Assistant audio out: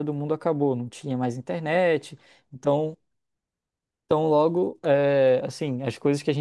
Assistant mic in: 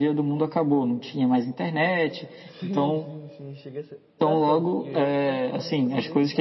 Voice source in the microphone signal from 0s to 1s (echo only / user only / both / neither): echo only